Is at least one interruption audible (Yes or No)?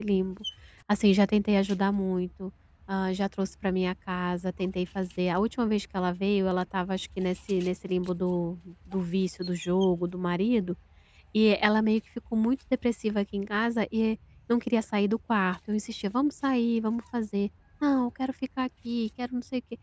No